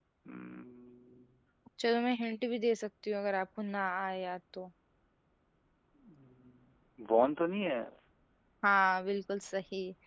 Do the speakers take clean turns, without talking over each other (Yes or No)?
Yes